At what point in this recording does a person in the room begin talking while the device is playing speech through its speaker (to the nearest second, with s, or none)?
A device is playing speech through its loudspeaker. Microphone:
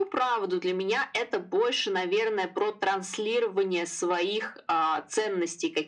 none